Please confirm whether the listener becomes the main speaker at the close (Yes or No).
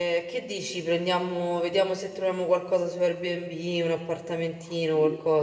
Yes